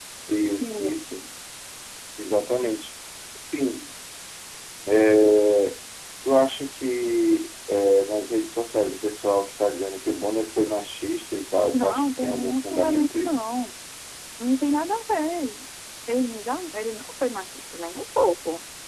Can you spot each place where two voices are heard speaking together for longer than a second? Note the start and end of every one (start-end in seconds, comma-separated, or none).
11.7-13.4